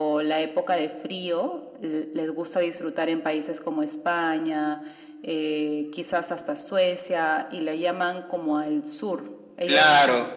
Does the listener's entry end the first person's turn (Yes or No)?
Yes